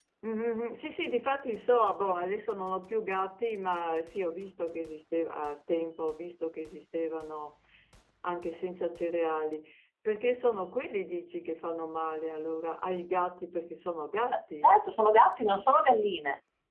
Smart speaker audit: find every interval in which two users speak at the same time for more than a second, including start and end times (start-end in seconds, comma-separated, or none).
none